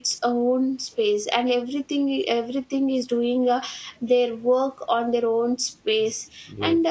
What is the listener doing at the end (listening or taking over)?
listening